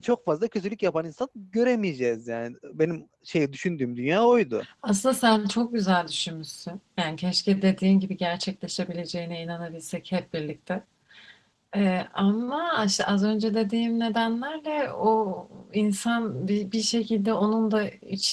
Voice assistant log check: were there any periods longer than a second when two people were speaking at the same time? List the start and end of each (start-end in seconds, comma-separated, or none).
none